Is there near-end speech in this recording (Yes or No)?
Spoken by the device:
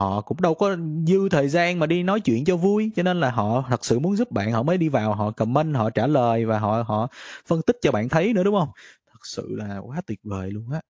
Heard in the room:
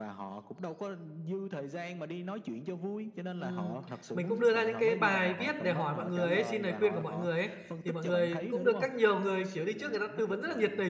Yes